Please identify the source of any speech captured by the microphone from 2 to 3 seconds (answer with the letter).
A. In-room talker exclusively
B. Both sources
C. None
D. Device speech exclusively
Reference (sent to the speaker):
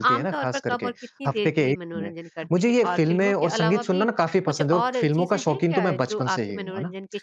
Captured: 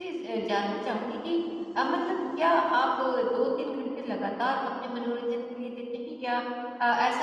A